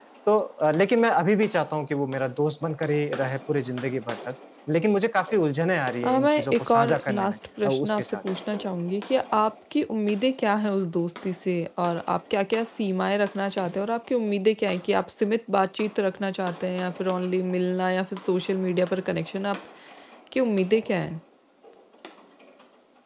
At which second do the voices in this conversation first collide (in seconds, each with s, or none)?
6.0 s